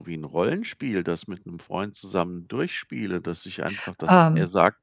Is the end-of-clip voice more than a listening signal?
No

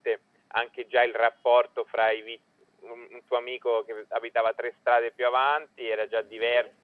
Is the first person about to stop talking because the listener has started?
No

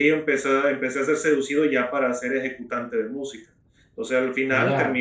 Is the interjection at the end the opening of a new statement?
No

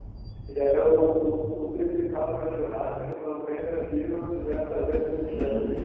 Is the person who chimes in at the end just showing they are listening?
No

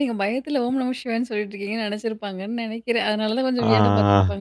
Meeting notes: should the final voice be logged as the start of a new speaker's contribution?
Yes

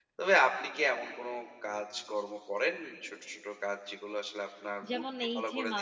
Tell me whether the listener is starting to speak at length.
Yes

